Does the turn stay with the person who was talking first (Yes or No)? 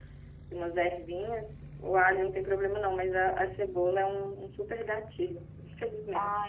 No